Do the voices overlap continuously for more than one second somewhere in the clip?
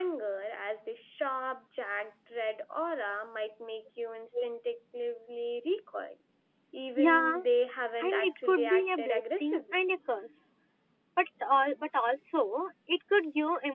Yes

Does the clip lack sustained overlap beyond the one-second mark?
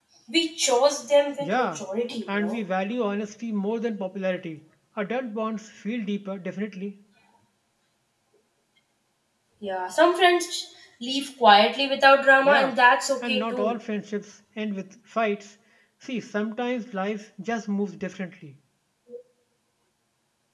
Yes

